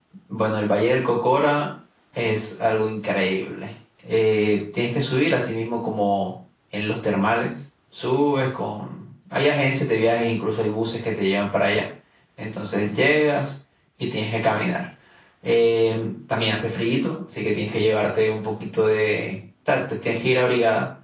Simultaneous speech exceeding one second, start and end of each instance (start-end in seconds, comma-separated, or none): none